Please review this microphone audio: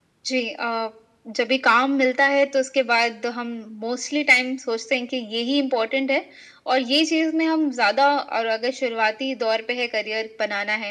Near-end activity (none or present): none